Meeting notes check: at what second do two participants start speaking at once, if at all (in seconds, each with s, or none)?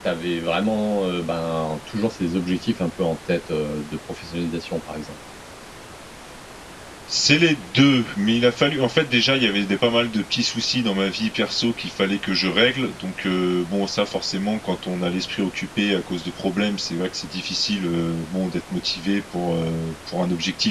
none